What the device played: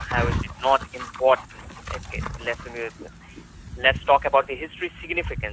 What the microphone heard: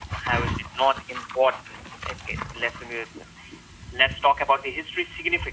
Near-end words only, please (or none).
none